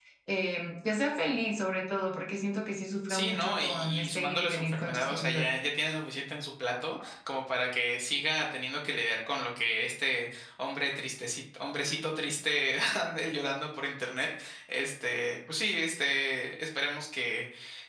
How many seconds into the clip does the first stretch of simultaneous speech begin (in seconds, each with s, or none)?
3.1 s